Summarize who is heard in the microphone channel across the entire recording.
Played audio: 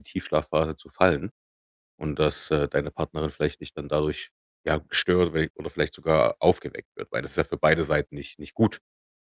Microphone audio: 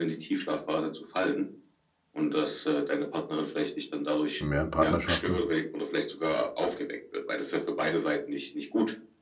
both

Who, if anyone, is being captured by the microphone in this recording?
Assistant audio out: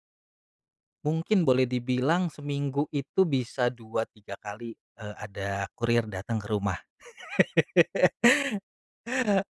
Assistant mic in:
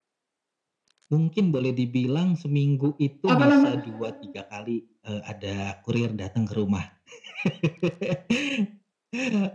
both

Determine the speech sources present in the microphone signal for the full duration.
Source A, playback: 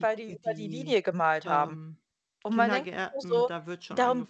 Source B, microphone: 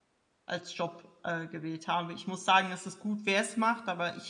user only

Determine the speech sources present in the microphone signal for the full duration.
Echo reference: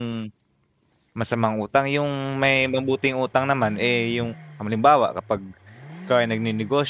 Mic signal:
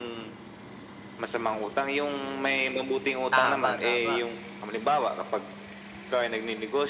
both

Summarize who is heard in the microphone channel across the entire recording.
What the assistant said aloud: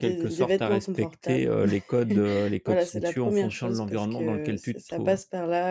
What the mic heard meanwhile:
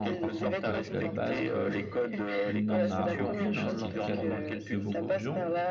both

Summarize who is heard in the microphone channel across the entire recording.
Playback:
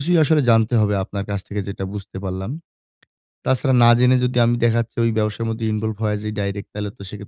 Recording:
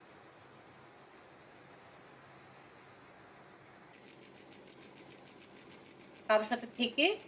user only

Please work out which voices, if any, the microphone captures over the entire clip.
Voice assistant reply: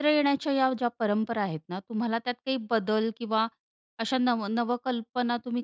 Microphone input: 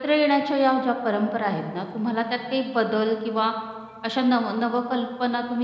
echo only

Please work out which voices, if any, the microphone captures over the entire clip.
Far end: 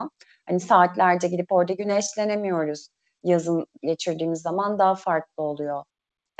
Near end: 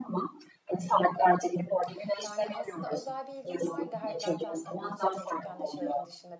both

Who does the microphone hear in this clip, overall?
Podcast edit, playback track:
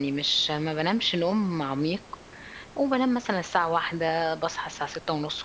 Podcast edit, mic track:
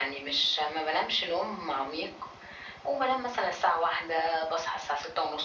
echo only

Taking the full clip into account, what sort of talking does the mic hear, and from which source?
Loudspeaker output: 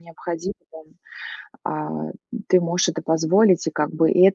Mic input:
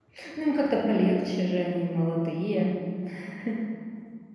user only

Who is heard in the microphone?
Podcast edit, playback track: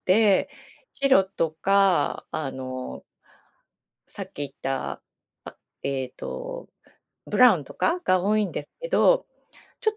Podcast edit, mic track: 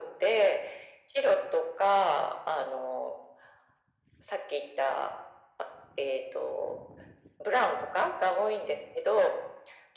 echo only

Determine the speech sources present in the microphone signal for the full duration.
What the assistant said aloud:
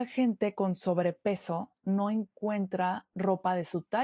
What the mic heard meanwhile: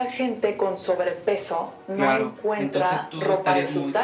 both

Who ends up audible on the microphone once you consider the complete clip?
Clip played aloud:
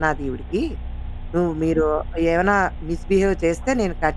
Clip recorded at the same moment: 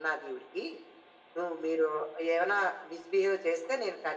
echo only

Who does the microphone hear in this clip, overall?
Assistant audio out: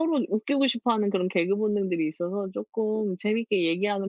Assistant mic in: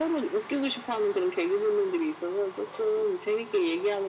echo only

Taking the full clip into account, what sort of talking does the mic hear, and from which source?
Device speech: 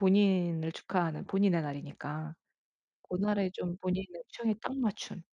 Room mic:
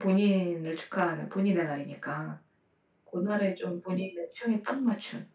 echo only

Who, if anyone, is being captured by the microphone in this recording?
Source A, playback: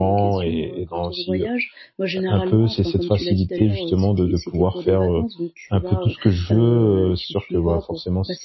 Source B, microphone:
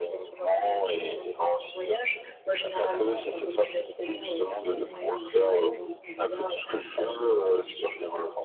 both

